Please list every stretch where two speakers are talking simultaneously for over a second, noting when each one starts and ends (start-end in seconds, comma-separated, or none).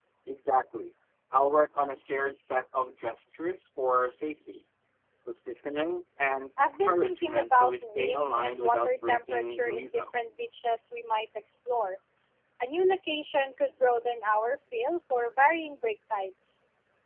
6.6-10.0